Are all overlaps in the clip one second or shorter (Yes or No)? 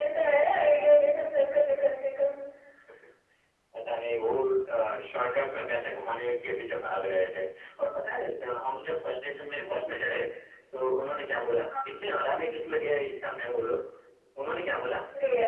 Yes